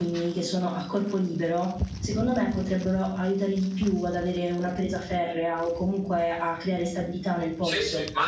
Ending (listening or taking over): taking over